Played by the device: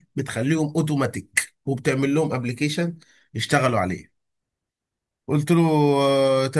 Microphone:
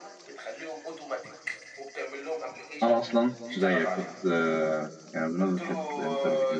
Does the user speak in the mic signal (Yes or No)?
Yes